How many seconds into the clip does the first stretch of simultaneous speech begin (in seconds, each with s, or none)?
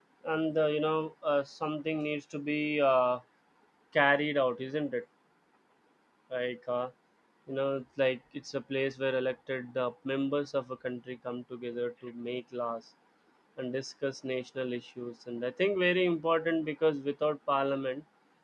none